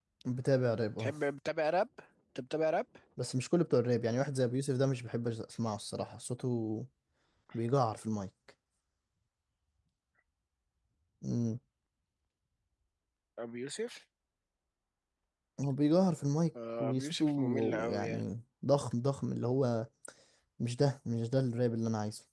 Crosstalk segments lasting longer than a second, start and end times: 16.8-18.2

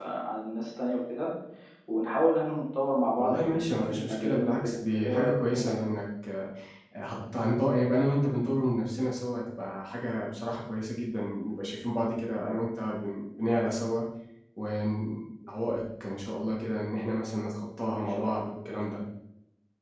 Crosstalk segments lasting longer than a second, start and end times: 3.2-5.8

